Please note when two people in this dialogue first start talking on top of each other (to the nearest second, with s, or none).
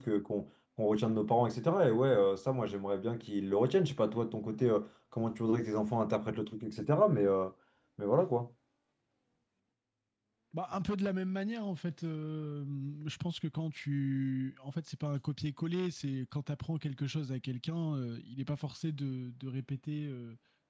none